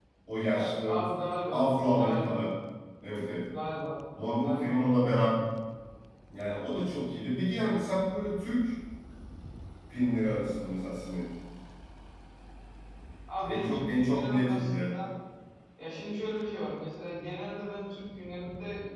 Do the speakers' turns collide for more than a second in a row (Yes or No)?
Yes